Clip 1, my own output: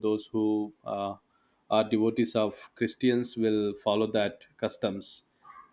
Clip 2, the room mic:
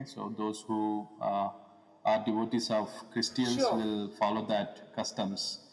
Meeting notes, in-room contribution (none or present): present